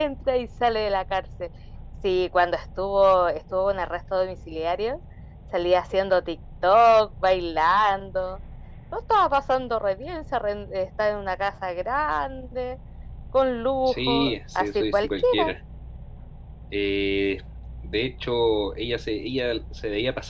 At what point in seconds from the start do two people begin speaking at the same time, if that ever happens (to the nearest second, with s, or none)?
14 s